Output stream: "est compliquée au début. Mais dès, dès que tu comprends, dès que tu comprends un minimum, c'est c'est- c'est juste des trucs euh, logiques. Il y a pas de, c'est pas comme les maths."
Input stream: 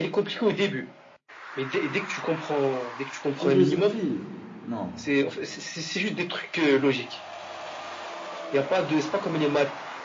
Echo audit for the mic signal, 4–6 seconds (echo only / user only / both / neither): both